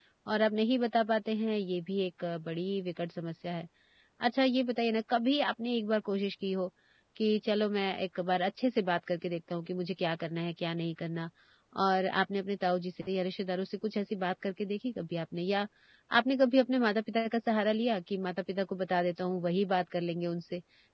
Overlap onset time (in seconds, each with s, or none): none